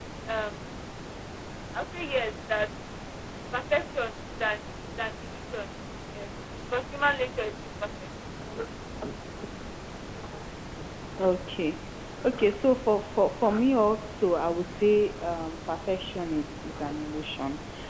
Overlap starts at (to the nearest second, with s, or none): none